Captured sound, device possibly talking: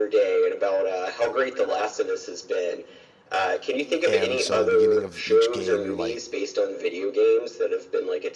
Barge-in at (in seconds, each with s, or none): 4.1 s